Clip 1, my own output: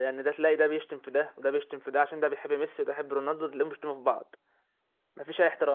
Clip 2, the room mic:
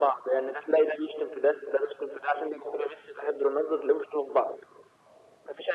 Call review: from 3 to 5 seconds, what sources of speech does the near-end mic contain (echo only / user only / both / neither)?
echo only